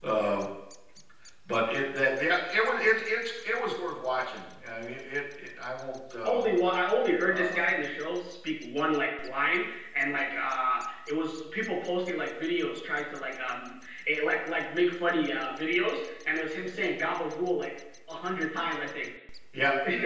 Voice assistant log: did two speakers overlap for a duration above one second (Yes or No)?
No